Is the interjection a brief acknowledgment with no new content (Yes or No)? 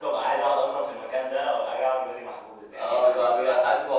No